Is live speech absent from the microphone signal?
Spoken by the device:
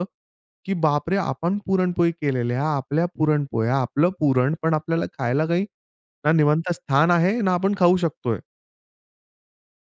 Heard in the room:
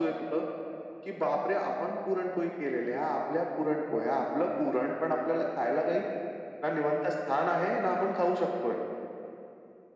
Yes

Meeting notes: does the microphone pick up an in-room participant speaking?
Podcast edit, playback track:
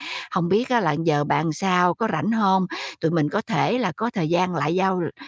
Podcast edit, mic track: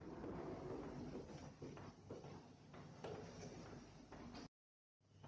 No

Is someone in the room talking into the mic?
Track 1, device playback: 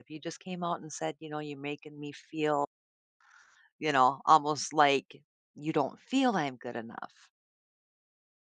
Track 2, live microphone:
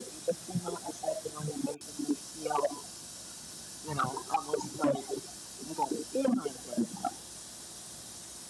No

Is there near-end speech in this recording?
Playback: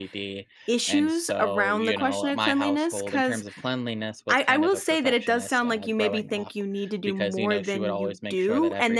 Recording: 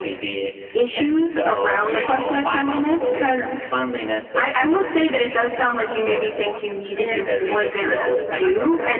Yes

